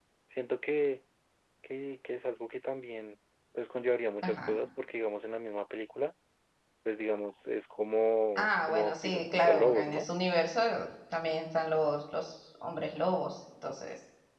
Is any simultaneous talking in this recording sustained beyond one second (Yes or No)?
Yes